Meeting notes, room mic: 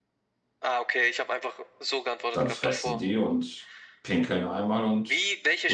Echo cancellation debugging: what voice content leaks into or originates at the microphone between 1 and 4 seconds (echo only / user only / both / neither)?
both